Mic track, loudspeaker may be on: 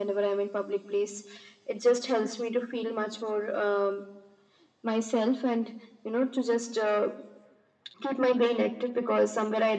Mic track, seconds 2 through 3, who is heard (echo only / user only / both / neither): echo only